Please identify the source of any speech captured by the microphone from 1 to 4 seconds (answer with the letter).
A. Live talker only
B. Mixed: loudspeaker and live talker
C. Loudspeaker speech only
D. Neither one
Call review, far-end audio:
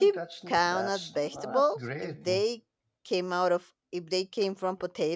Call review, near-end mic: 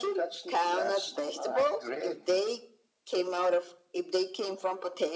C